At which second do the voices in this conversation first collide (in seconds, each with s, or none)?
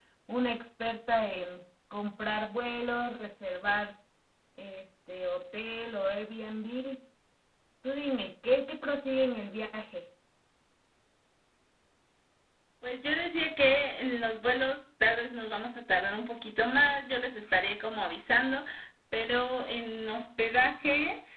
none